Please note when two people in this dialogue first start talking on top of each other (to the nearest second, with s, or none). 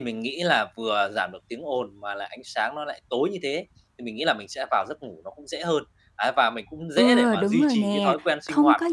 7 s